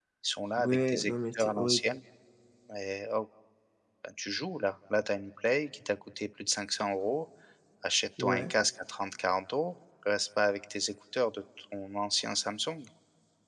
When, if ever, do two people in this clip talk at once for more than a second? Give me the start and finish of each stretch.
0.6-1.8

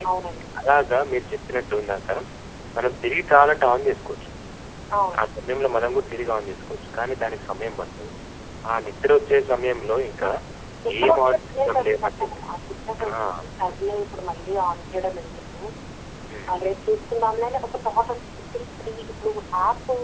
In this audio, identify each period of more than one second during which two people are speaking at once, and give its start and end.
11.0-12.3

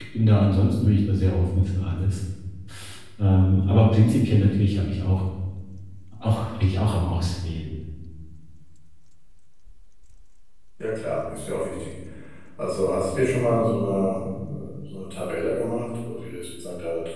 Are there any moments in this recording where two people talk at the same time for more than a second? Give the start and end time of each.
none

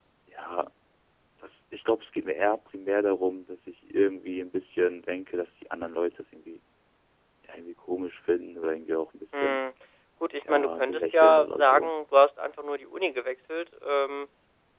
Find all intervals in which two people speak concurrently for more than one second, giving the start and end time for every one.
10.4-11.9

